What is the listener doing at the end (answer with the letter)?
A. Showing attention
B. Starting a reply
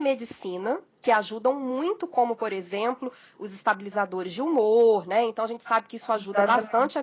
A